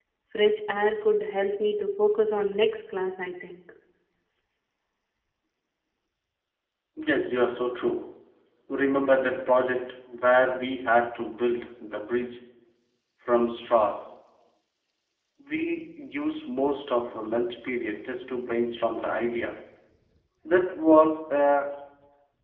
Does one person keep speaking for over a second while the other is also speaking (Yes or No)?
No